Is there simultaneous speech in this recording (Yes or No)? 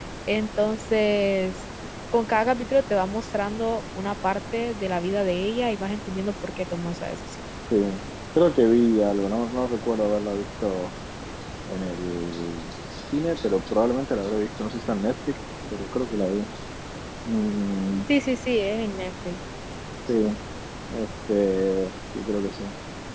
No